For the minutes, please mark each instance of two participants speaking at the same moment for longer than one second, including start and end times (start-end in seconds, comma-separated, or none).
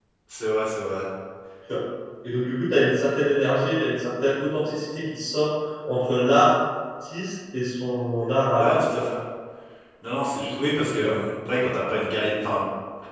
none